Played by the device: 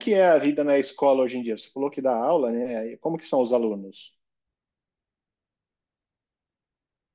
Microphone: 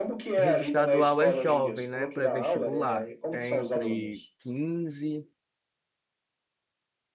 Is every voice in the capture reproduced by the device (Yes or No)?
No